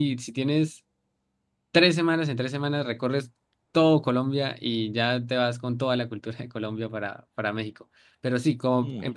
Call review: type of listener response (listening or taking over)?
listening